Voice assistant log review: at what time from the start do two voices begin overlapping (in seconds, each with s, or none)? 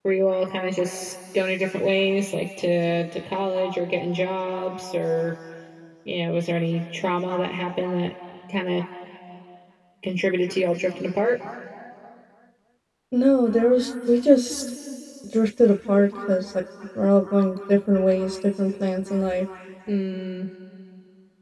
none